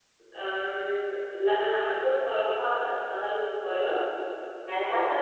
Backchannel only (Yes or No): Yes